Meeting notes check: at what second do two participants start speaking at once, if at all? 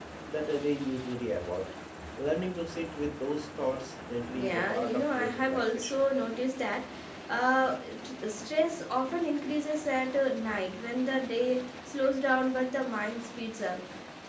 4 s

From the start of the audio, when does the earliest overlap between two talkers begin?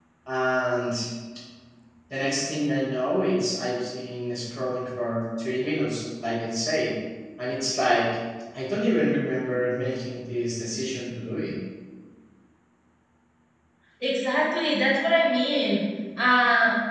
none

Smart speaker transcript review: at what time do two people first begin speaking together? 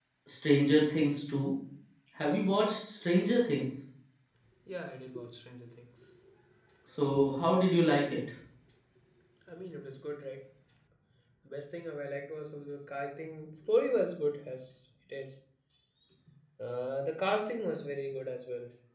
none

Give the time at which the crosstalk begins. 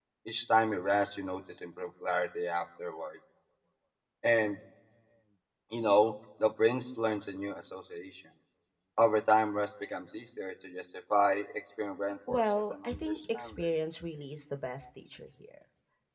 12 s

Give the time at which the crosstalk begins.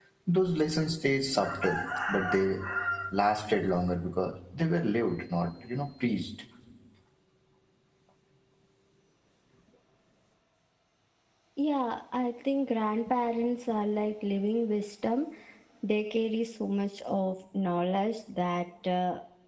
none

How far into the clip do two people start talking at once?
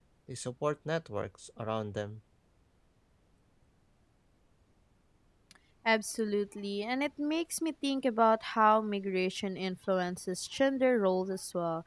none

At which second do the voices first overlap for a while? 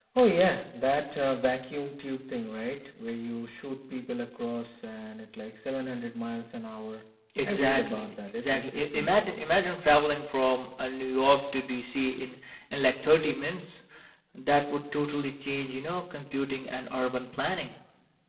7 s

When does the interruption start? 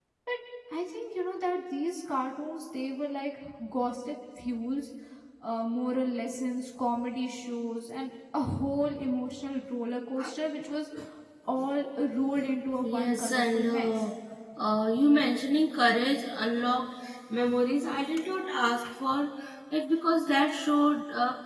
13 s

